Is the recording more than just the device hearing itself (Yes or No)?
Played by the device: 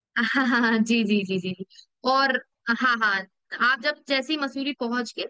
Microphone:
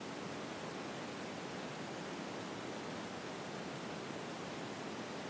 No